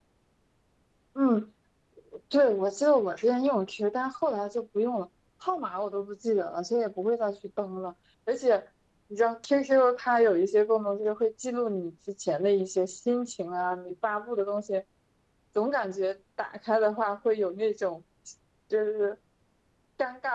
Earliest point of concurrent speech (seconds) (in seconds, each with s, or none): none